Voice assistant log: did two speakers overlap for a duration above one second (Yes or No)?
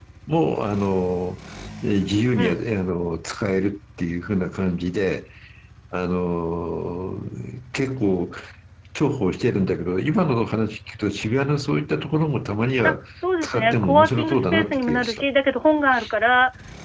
Yes